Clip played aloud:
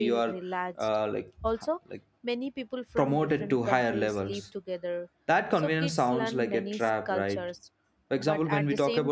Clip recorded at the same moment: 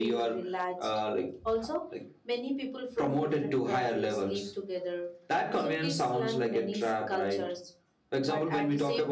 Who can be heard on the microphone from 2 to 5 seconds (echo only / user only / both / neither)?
echo only